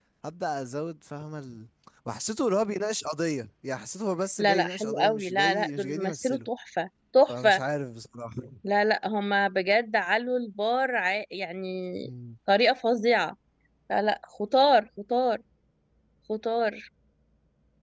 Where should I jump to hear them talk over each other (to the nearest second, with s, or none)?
4 s